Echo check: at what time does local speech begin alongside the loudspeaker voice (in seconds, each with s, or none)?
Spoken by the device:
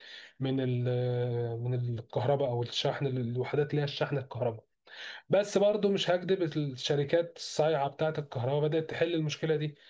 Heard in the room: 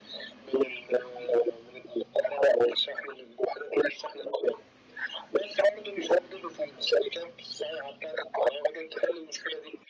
none